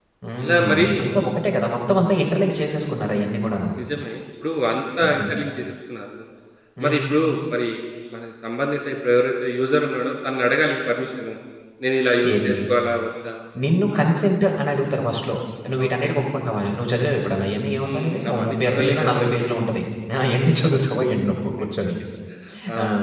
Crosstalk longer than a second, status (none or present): present